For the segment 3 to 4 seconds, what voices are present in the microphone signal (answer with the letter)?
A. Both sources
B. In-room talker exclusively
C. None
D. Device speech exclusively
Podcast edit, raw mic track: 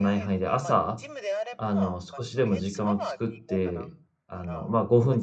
A